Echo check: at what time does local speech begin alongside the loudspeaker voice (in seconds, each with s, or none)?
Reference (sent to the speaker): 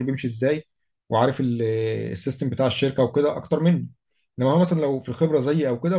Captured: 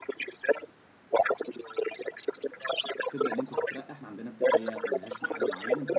3.1 s